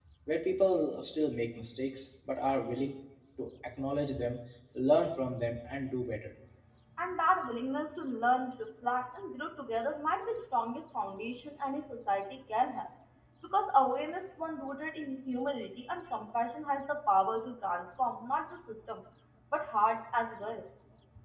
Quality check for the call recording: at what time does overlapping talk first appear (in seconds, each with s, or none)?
none